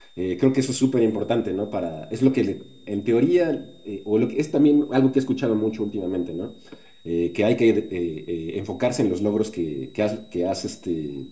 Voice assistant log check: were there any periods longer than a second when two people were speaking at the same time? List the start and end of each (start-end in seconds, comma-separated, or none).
none